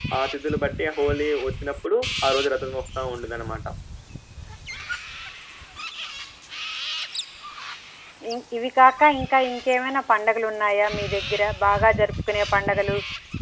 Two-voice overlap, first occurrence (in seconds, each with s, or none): none